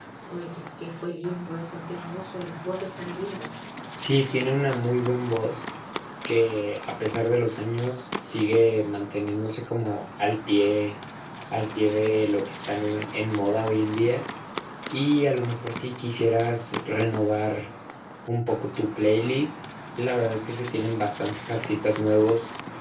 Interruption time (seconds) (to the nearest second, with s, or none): none